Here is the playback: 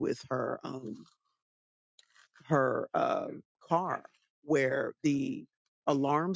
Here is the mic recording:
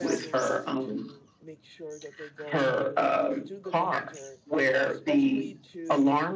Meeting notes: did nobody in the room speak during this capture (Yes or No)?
No